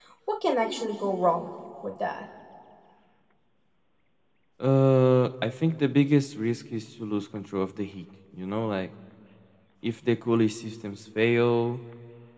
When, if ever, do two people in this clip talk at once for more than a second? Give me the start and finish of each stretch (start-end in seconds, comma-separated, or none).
none